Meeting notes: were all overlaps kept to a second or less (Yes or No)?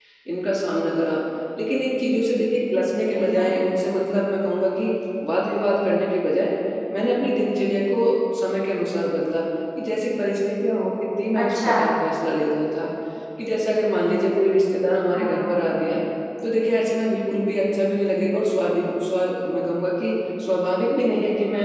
Yes